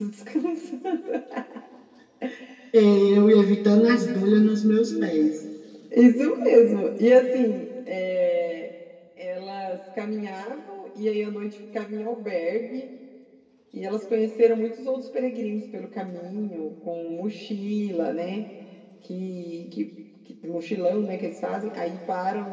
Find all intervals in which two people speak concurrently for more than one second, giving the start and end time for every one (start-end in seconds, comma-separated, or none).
none